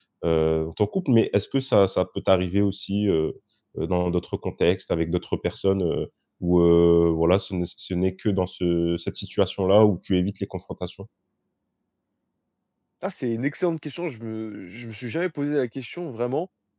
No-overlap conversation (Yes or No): Yes